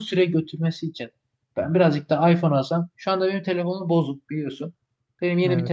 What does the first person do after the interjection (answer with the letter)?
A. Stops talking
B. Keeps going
B